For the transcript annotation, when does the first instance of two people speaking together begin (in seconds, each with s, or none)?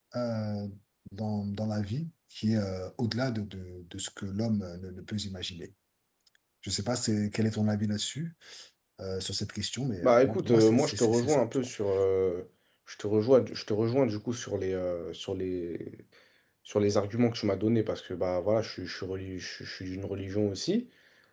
10.0 s